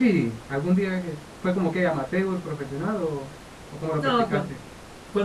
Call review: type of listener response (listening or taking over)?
taking over